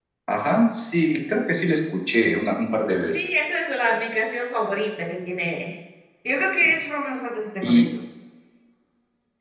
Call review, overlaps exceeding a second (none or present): none